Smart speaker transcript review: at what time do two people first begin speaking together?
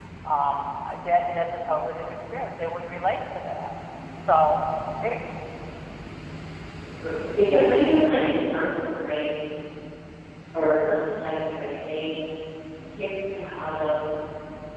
none

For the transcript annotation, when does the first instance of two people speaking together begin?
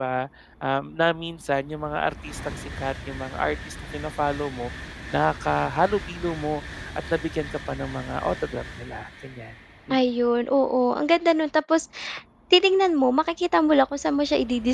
none

